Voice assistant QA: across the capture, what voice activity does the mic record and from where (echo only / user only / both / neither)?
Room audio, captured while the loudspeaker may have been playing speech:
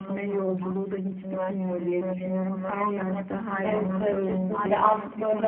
both